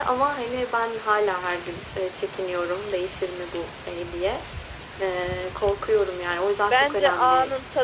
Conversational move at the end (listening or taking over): taking over